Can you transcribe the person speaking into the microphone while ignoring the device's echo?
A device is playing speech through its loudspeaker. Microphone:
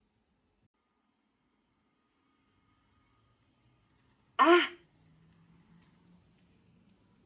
あ、

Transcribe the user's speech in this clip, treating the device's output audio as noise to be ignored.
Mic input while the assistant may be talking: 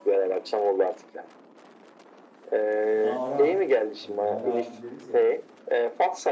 Nara. Hani nara attı deriz ya.

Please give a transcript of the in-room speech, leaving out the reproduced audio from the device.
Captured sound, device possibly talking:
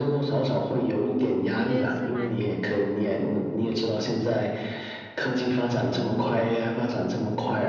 我觉得是蛮

